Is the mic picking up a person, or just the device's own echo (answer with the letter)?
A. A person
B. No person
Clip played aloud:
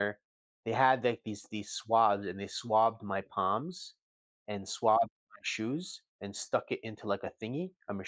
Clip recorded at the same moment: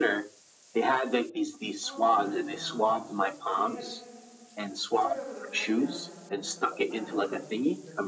A